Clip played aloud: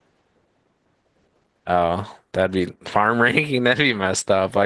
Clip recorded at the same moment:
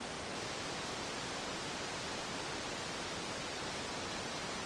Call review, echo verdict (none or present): none